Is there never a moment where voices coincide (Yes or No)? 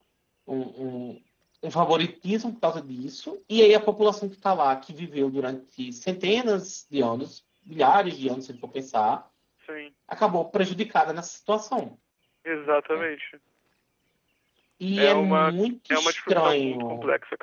No